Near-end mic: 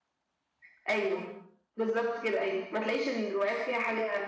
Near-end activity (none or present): none